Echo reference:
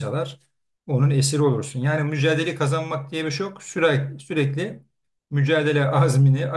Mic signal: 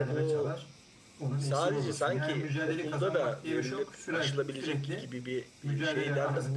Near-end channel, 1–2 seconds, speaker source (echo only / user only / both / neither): both